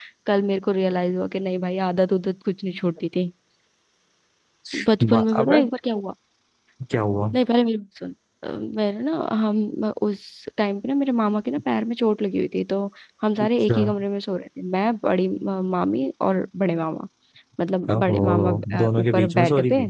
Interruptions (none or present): present